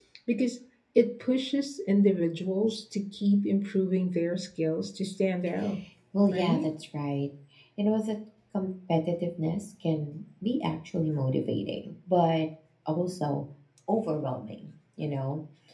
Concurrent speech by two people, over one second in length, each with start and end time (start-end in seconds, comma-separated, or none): none